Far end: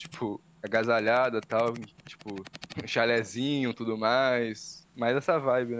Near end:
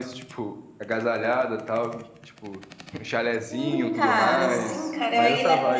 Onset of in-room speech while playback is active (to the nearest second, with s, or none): 3 s